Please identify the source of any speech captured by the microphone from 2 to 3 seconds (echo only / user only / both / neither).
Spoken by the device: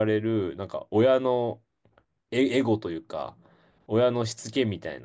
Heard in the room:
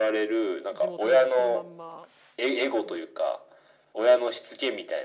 both